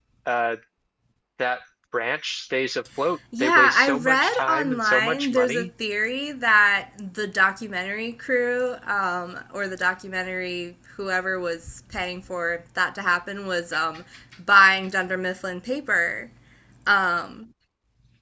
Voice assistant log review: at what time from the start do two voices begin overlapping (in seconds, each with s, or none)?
3.3 s